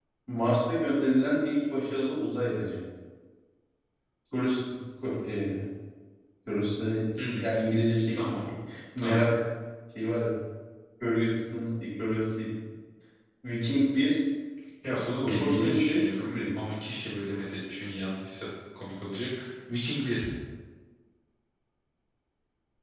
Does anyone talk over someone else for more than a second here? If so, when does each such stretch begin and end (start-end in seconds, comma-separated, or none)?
15.2-16.4